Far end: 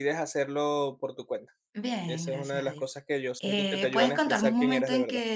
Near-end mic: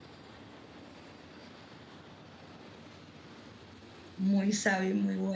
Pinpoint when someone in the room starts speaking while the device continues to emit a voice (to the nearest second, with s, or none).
4 s